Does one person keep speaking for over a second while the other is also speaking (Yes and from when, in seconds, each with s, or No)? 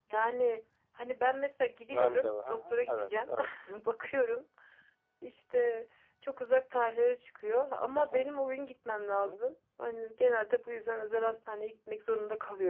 Yes, from 1.9 s